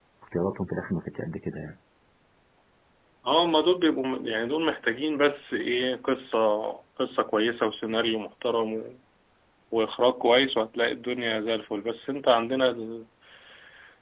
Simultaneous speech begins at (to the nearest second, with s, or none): none